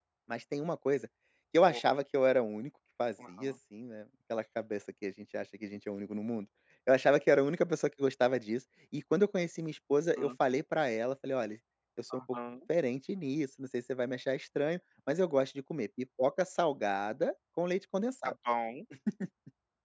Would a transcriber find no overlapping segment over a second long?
Yes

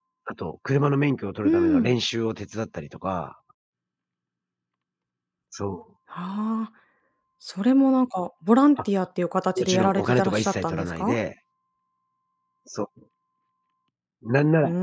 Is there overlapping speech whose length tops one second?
Yes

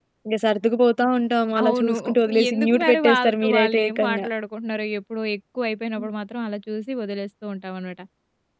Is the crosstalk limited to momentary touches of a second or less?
No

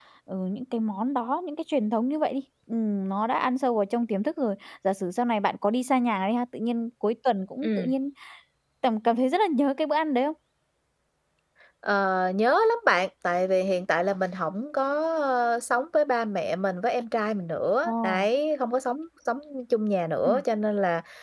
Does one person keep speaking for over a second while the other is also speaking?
No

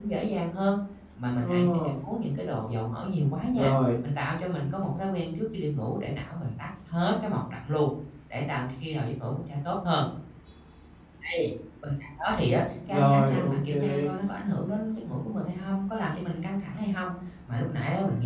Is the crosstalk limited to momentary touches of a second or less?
No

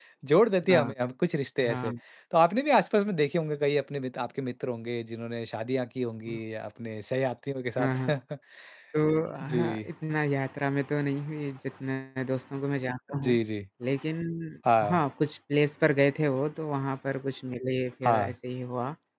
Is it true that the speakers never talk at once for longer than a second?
Yes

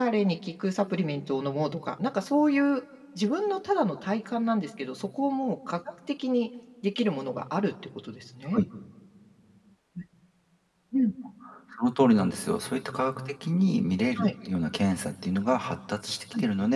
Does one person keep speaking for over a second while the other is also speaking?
No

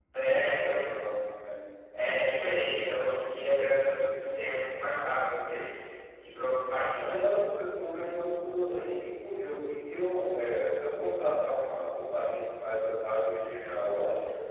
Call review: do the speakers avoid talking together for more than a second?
Yes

